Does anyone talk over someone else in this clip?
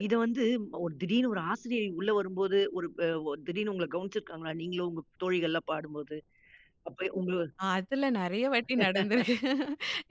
No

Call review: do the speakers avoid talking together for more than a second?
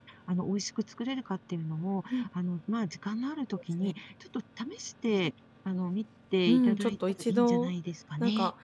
No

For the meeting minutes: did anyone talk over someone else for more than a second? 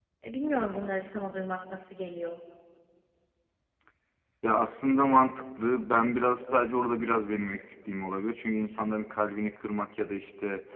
No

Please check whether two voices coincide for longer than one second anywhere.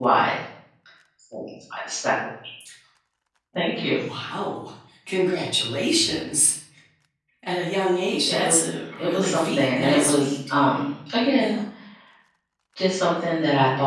Yes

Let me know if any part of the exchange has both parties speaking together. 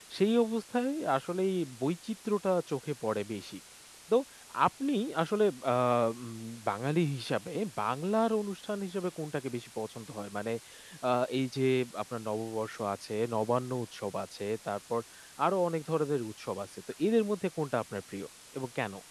No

